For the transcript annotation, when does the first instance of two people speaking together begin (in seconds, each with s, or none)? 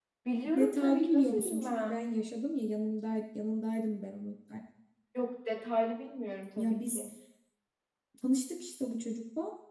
0.6 s